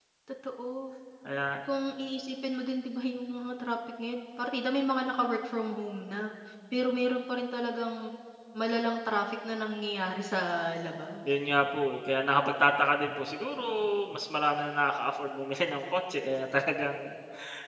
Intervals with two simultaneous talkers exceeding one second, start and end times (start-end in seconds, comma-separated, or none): none